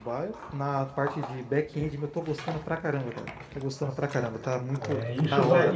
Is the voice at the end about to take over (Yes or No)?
Yes